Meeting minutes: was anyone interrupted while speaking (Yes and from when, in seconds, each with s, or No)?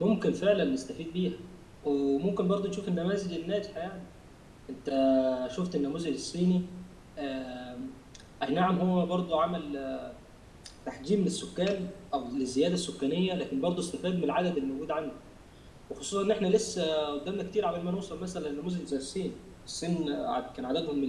No